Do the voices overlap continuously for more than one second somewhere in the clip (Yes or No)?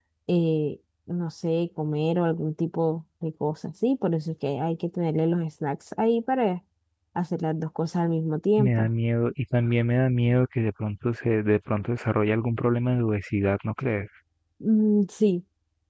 No